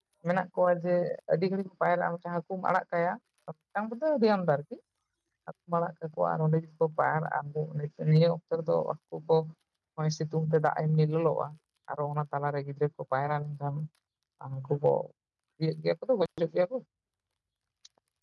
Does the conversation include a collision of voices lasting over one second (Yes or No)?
No